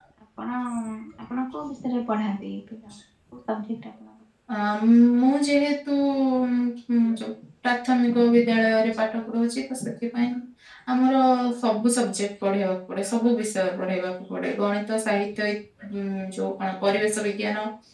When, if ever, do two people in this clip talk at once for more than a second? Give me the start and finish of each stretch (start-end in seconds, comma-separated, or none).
none